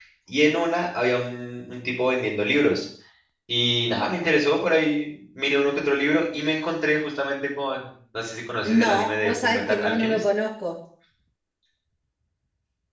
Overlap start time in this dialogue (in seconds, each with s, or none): 8.6 s